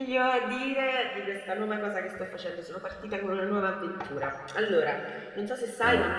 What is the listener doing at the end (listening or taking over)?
listening